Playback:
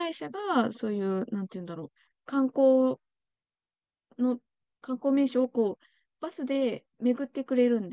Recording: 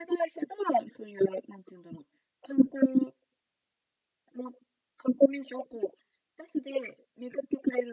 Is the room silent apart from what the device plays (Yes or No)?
Yes